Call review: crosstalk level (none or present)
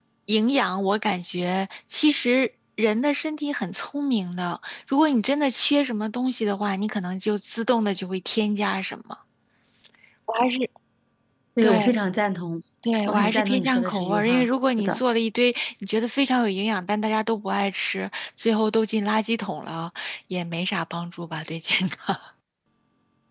present